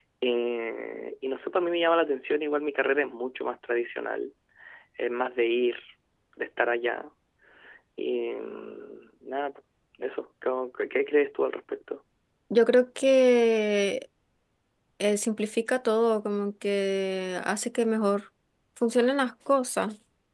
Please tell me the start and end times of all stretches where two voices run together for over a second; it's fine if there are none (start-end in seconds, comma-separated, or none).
none